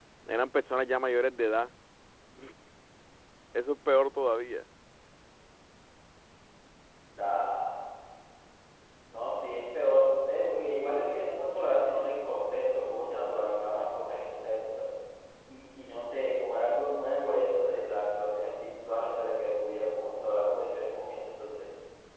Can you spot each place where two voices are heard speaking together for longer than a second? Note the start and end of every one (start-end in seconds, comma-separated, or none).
none